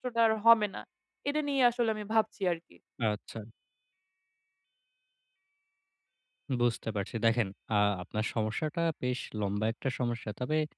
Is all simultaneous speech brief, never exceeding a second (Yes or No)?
Yes